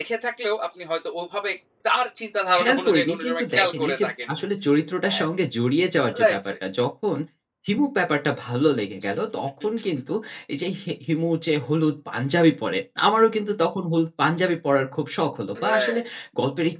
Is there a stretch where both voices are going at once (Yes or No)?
Yes